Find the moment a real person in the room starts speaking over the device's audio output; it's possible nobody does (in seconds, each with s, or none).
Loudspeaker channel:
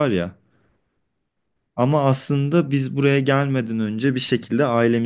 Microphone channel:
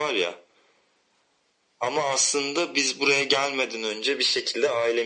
none